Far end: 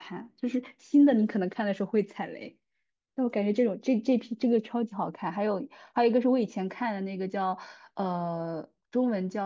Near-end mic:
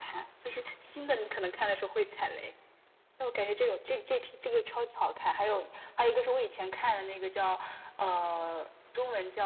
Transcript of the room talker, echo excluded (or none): none